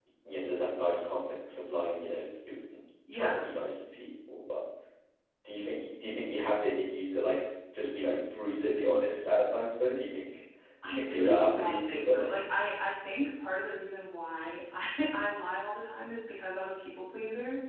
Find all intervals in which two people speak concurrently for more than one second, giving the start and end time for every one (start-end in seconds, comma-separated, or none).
10.8-12.3